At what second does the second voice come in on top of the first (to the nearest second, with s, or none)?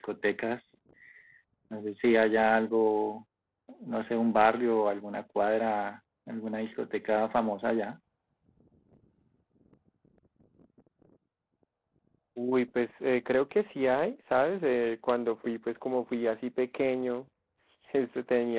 none